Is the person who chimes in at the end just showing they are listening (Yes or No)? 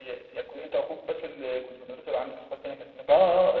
No